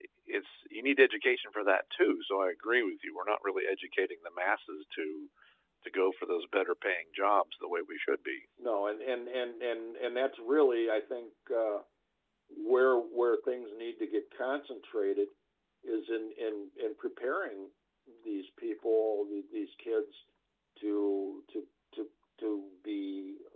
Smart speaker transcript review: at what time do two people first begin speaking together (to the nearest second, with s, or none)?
none